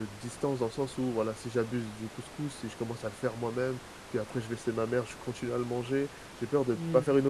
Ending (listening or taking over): listening